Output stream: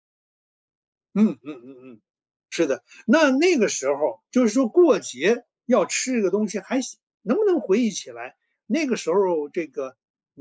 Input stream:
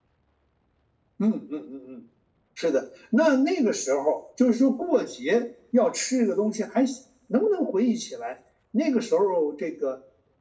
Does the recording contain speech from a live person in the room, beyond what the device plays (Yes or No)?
No